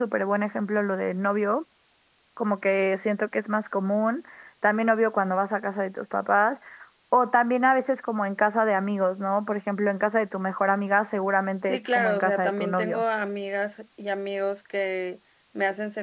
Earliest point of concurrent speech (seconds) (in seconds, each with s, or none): 11.6 s